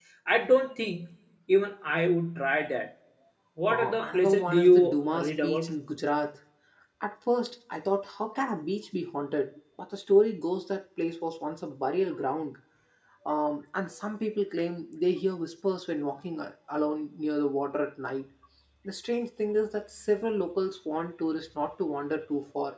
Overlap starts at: 3.7 s

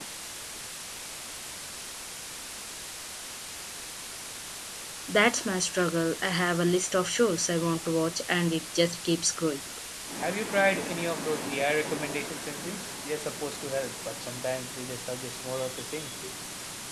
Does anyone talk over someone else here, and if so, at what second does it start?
none

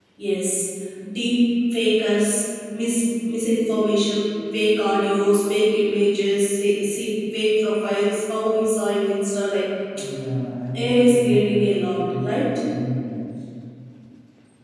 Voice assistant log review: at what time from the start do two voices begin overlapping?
10.7 s

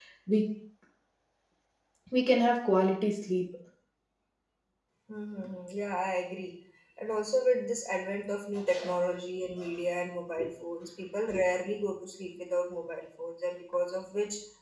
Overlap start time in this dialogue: none

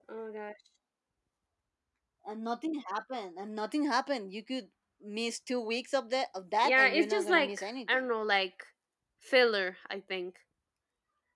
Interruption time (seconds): 6.5 s

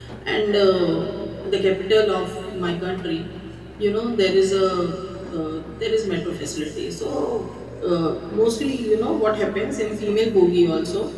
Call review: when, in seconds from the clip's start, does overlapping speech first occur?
none

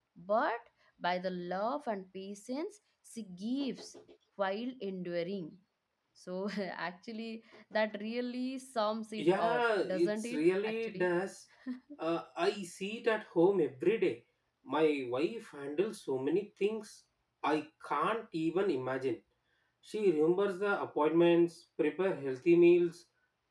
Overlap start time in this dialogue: 9.2 s

